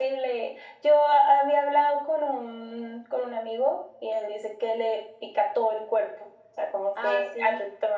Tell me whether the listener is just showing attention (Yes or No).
Yes